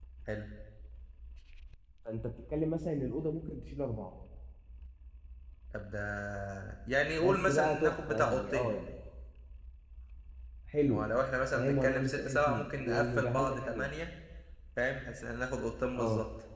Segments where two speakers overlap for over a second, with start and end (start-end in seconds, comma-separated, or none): 7.2-8.8, 11.5-13.9